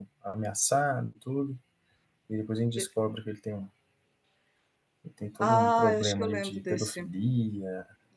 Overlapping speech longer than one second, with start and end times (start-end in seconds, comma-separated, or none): 5.4-7.0